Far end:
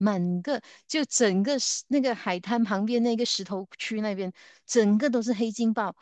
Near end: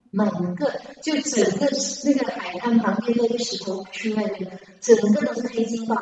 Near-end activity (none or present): none